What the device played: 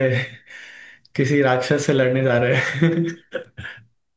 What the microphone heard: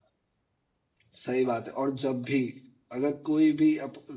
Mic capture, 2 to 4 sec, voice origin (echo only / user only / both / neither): user only